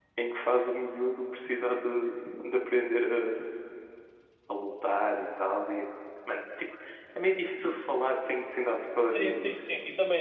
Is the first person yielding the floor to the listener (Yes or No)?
Yes